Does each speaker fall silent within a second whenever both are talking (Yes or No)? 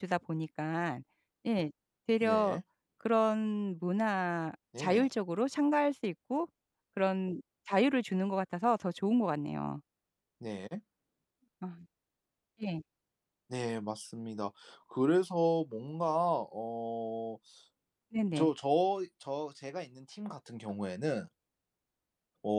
Yes